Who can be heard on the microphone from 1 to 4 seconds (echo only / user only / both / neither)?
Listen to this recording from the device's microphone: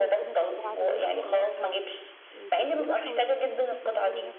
both